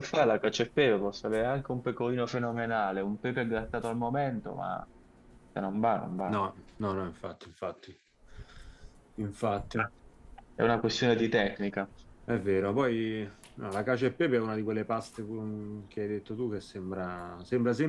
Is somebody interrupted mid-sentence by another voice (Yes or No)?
No